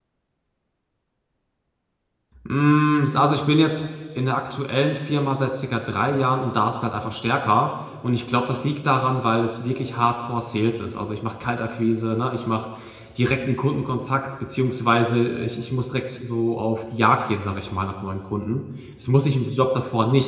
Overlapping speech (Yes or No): No